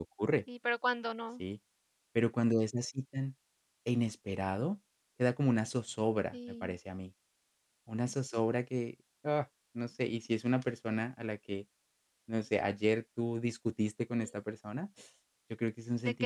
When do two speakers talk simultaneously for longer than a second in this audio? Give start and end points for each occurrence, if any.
none

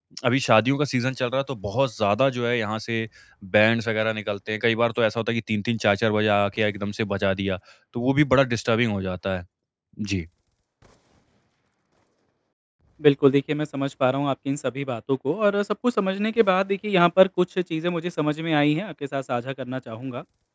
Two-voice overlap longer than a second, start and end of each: none

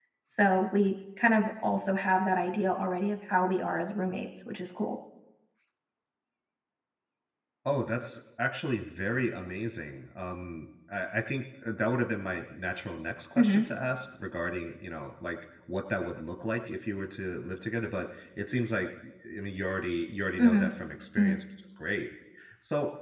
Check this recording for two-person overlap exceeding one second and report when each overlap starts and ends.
none

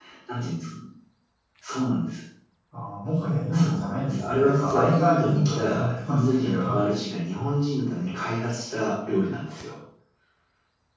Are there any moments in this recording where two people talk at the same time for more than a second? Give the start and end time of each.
3.5-6.6

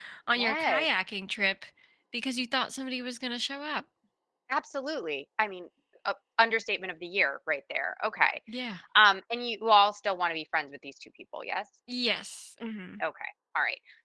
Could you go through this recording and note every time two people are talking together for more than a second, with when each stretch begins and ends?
none

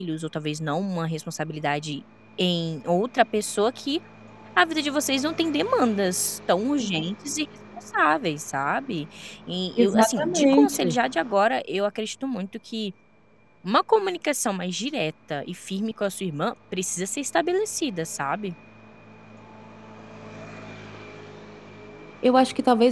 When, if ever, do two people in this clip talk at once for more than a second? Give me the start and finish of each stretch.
9.8-11.0

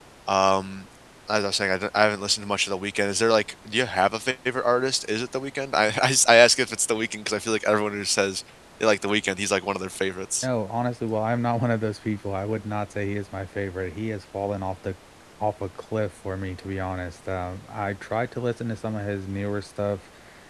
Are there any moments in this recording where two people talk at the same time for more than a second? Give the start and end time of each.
none

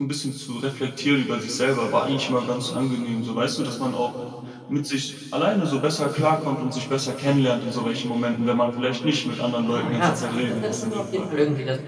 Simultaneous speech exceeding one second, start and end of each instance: 9.6-11.3

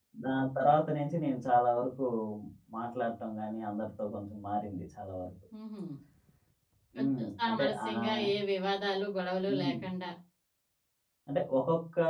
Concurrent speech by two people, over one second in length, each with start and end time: 7.0-8.2

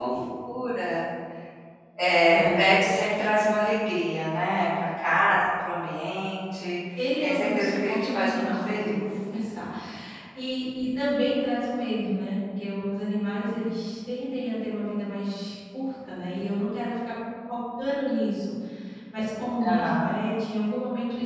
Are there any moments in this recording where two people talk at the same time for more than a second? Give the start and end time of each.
7.0-9.0

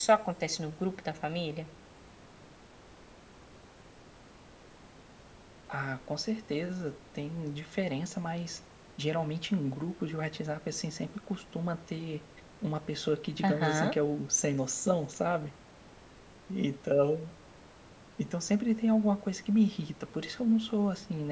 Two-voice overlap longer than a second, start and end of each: none

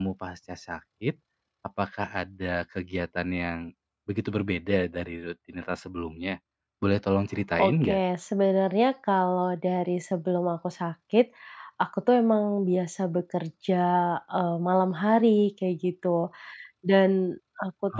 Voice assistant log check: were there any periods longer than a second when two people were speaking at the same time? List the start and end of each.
none

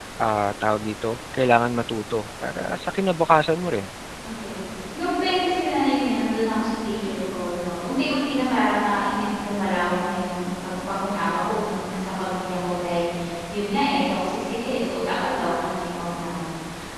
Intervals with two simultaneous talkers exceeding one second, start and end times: none

